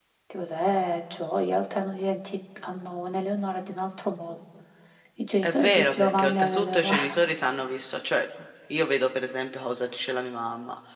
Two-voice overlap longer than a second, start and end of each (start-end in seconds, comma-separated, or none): 5.4-7.0